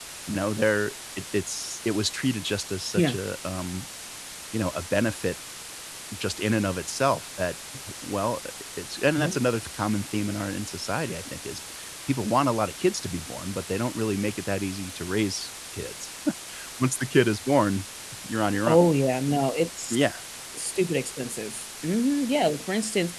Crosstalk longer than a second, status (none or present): none